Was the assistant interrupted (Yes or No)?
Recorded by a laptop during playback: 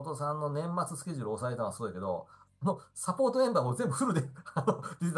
Yes